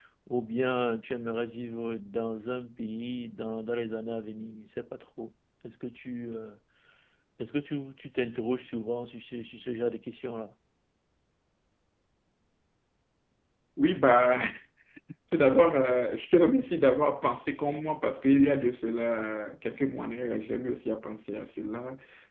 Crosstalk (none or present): none